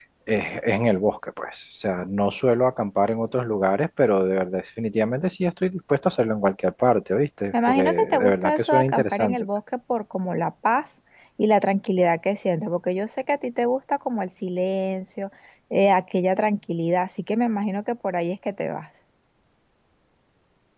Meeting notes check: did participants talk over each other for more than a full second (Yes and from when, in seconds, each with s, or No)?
Yes, from 7.5 s